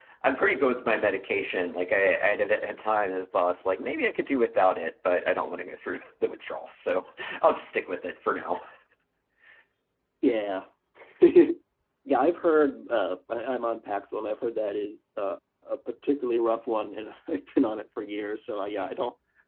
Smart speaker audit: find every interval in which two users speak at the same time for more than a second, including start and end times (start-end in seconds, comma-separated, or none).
none